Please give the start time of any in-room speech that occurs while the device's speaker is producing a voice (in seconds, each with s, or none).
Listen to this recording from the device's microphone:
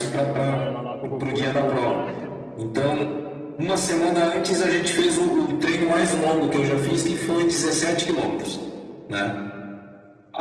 0.3 s